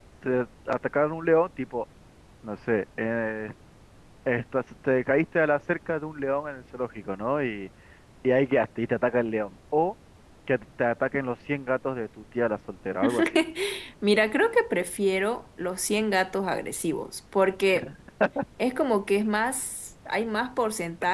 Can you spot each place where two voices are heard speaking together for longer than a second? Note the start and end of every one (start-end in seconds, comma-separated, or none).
none